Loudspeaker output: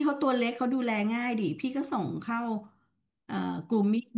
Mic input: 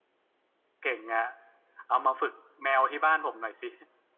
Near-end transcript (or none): เก่งอะเอามาฝึกแมวที่บ้านผมหน่อยสิ